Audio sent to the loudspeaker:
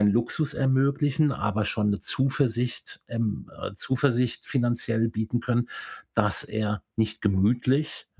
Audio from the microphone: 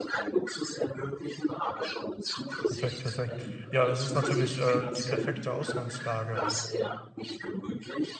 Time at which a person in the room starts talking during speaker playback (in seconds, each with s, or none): 2.7 s